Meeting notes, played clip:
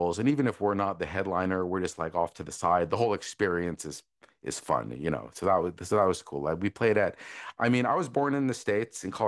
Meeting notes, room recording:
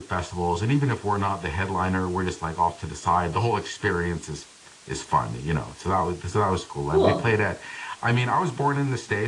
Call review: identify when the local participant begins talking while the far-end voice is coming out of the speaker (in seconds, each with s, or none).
6.9 s